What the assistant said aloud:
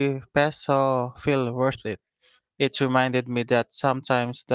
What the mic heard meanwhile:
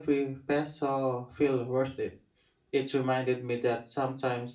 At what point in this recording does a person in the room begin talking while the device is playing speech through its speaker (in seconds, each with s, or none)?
none